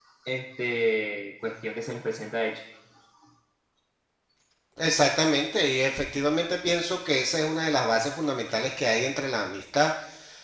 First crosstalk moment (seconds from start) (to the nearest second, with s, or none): none